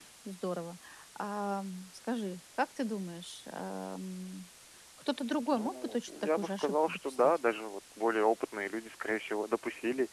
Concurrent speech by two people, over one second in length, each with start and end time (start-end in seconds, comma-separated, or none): 5.6-7.2